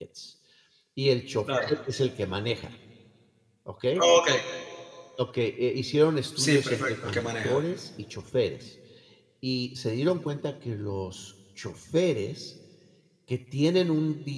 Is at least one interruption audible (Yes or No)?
Yes